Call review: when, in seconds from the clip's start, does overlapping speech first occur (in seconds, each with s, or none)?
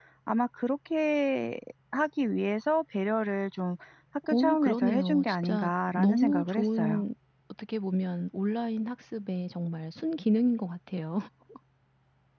4.2 s